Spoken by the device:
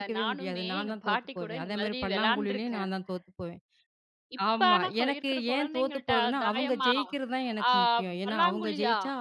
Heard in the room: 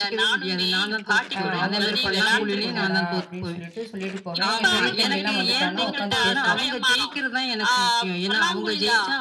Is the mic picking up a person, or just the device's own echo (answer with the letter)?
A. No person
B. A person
B